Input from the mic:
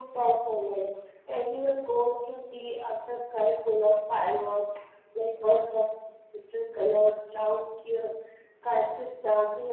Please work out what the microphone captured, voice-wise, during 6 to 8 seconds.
echo only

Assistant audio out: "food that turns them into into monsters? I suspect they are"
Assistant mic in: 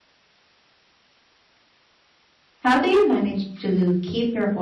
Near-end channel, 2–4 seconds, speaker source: user only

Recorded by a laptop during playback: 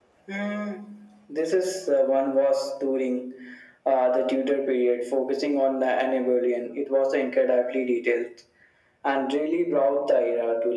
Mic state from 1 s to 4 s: echo only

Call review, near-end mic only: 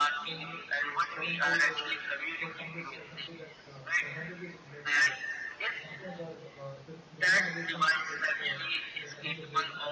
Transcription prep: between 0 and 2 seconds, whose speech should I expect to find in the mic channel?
both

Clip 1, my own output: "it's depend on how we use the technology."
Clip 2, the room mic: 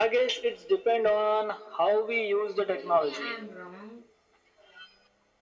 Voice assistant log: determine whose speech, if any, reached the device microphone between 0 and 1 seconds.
echo only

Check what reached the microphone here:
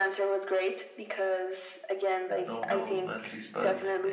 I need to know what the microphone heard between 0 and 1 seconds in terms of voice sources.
echo only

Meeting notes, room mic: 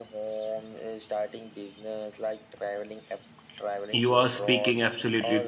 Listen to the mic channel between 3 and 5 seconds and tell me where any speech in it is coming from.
both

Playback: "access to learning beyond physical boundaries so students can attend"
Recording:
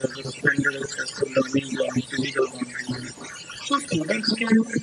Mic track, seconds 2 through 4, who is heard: echo only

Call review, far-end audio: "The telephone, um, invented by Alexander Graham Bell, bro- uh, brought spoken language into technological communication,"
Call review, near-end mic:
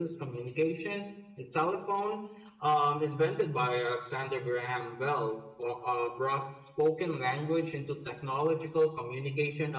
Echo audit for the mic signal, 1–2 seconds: echo only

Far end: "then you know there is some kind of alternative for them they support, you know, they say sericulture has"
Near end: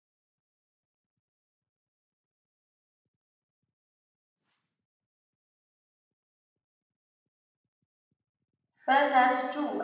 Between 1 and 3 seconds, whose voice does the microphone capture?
neither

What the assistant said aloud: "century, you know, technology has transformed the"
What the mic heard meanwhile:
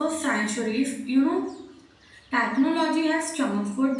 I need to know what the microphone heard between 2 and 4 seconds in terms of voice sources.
echo only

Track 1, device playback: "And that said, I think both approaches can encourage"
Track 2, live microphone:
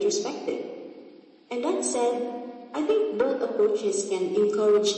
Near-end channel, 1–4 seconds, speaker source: echo only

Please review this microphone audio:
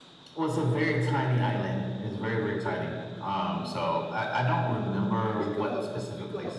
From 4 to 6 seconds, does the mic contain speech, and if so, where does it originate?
both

